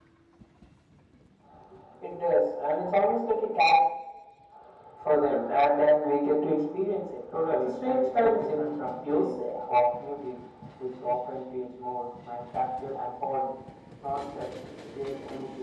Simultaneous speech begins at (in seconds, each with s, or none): 7.3 s